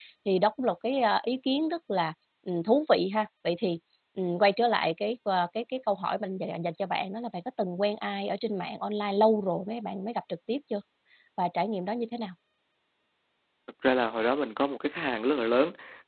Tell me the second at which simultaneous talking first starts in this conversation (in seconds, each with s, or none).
none